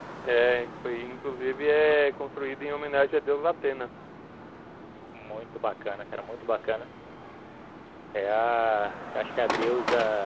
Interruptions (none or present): none